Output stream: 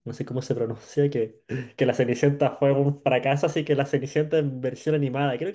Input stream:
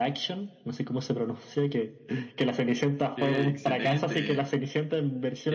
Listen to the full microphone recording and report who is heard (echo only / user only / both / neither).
both